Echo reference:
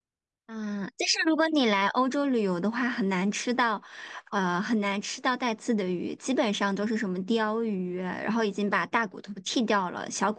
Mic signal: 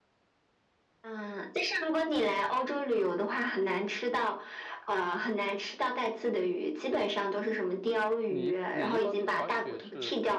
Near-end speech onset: 8.3 s

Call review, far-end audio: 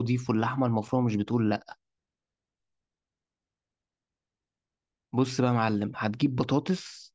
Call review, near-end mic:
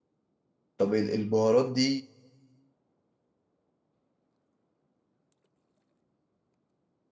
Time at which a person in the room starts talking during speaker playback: 0.8 s

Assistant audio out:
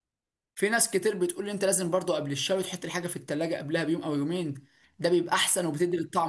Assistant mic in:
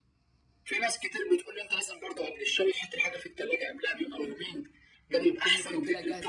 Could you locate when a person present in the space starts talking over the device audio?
5.2 s

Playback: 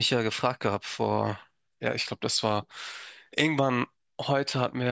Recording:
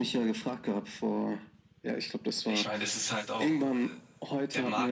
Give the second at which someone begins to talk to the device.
2.4 s

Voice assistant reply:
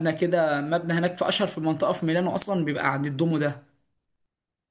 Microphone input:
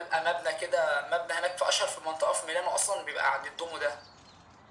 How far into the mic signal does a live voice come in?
none

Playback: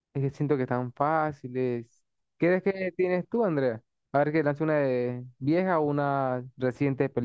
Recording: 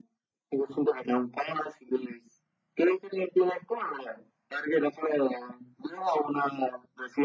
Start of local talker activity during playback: none

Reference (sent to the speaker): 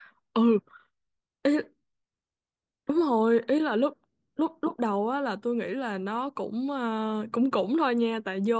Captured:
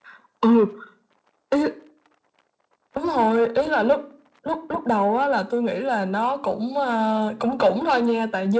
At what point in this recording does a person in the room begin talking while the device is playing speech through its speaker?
none

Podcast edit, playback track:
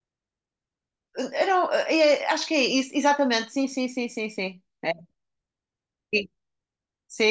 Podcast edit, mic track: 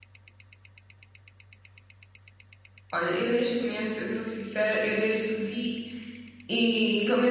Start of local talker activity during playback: 2.9 s

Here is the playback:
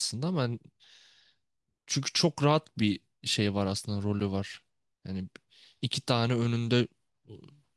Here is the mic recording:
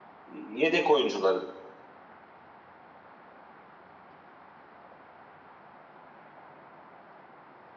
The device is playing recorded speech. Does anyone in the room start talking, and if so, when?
0.3 s

